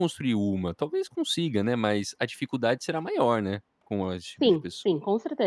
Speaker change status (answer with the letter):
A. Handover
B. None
A